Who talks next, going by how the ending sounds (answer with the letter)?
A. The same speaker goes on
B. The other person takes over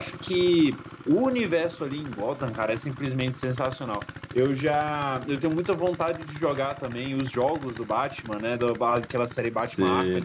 A